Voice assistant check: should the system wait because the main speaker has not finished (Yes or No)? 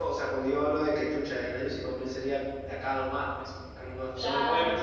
Yes